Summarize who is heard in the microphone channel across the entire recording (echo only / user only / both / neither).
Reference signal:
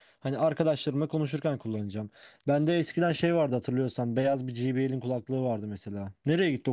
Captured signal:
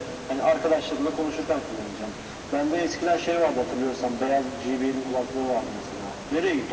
echo only